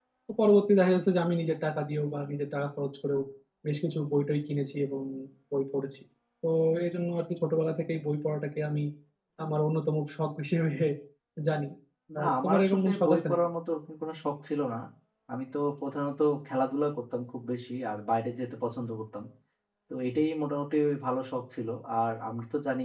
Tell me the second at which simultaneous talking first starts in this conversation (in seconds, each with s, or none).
12.2 s